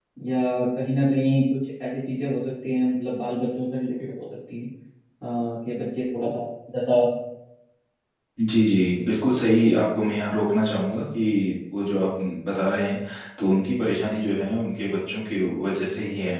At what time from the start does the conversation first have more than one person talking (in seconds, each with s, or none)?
none